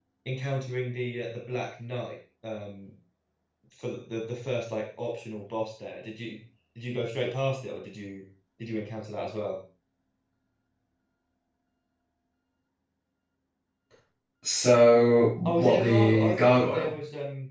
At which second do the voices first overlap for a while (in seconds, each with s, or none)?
15.4 s